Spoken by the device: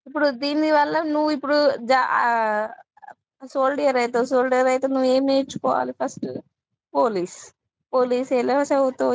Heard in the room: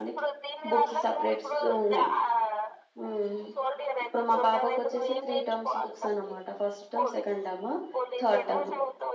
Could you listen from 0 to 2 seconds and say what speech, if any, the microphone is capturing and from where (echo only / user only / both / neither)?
both